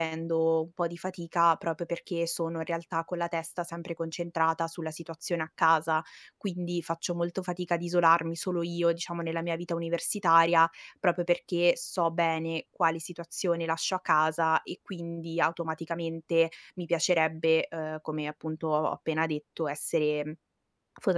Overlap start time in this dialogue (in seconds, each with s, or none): none